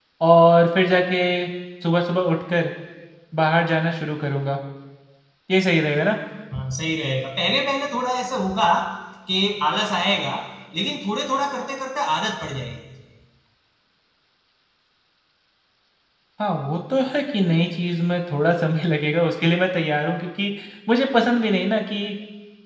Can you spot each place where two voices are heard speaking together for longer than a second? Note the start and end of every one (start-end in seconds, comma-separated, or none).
none